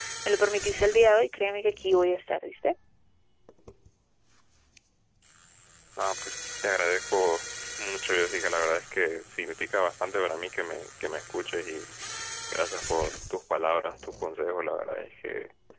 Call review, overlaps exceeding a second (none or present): none